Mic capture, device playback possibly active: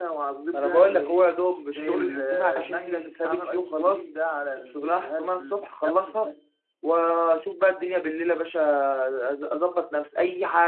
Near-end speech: present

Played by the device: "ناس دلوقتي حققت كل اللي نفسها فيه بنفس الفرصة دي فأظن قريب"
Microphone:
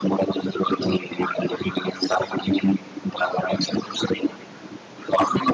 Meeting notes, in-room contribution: none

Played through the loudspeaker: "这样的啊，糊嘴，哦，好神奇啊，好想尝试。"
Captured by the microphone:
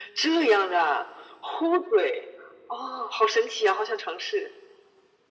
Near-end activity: none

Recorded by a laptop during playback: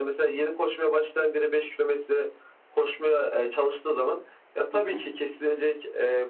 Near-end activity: present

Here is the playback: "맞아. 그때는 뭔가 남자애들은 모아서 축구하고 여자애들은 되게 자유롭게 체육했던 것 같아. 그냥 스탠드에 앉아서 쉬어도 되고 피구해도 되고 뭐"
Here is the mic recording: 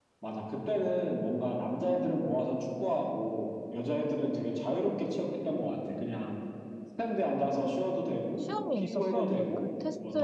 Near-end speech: present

